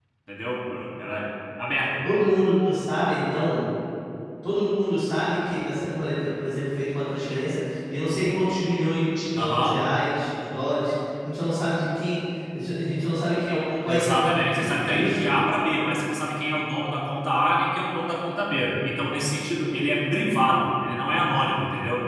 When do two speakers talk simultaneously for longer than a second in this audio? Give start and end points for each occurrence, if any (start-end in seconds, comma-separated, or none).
13.9-15.3